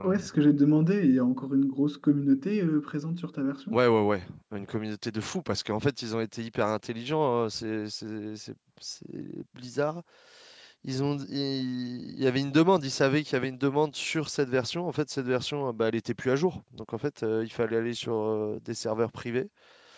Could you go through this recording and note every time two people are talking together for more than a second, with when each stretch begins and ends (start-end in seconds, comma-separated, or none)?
none